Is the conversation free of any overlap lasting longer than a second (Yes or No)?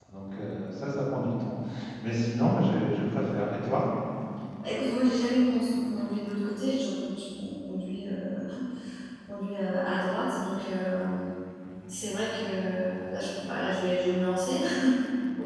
Yes